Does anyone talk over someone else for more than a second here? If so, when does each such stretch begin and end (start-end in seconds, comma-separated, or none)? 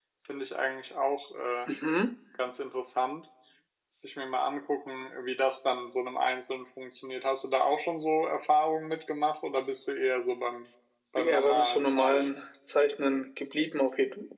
11.2-12.4